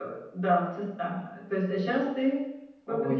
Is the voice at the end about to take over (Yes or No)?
Yes